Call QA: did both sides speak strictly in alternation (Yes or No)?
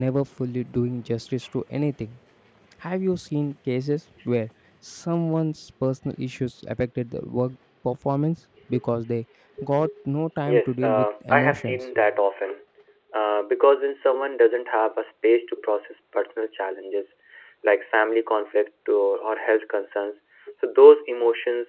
No